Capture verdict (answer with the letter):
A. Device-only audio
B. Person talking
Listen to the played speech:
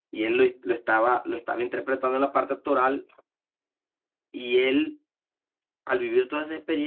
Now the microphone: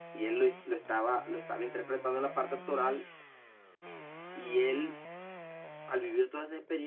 A